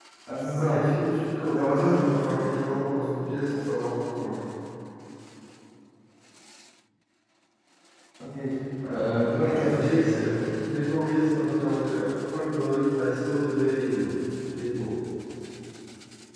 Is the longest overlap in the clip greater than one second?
Yes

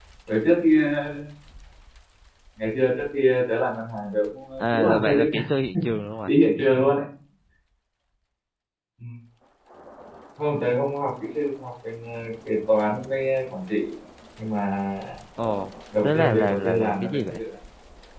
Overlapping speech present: Yes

